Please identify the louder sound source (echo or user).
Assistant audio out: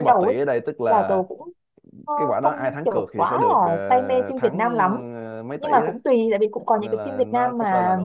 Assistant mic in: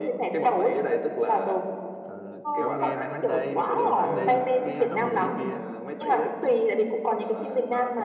echo